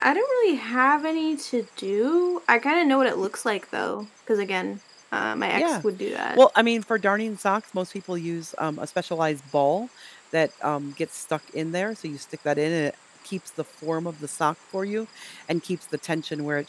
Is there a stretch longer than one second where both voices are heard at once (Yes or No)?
No